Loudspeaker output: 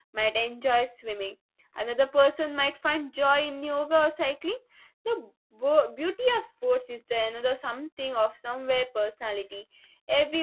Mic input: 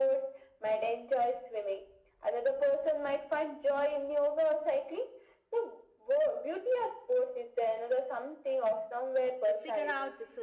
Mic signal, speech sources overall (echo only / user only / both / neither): both